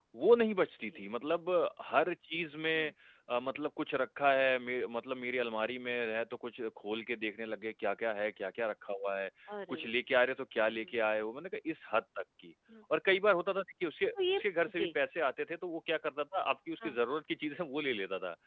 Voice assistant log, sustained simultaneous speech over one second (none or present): none